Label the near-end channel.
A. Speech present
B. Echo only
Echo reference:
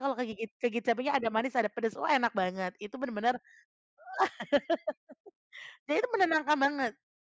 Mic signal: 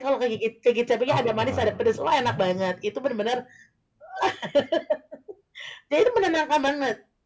A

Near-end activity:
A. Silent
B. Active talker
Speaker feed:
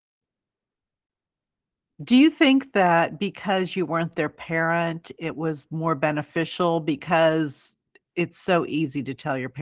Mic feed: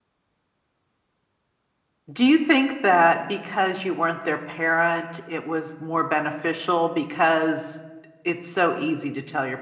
A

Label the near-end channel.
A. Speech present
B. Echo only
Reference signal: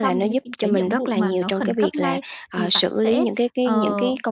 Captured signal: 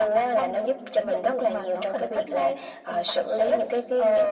B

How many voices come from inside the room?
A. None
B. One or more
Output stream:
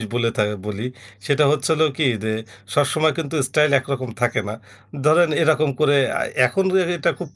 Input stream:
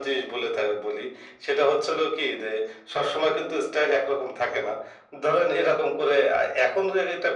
A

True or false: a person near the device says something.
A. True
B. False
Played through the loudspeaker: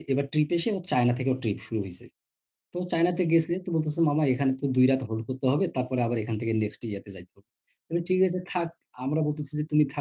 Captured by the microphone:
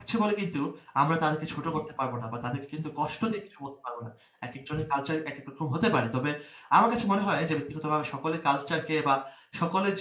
A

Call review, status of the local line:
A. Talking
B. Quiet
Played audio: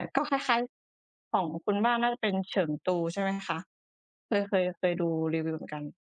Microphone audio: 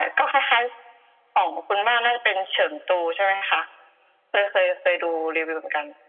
B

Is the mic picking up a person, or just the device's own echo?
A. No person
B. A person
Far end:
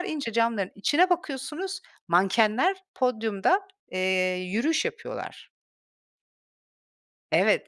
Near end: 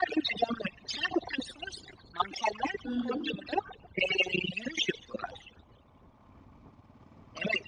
B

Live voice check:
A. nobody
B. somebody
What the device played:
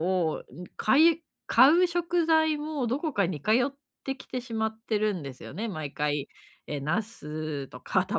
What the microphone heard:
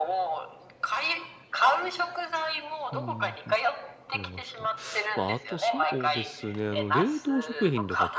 B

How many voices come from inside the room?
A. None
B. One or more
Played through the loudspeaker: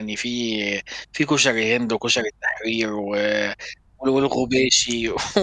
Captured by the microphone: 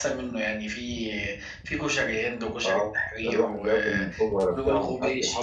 B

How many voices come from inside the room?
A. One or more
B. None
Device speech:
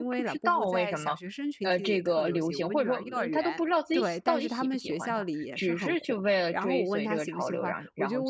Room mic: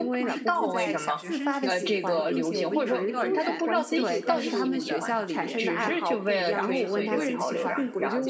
A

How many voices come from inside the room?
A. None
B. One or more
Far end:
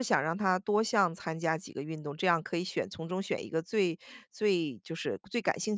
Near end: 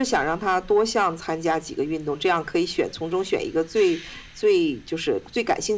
A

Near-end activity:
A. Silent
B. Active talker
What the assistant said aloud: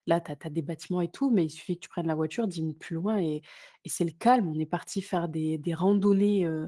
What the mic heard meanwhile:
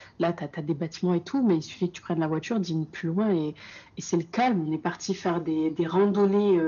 A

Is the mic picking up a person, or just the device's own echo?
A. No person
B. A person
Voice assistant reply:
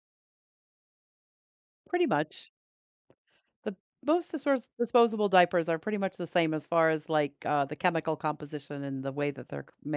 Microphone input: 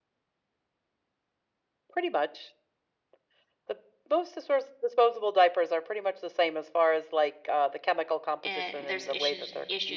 B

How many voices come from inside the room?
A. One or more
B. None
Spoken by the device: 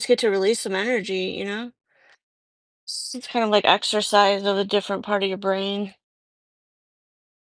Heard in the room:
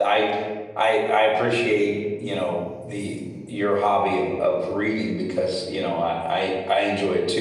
A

